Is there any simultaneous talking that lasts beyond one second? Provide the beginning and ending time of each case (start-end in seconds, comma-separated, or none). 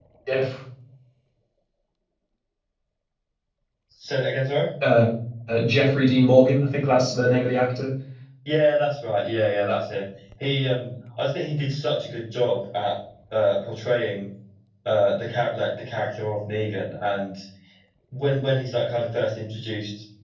none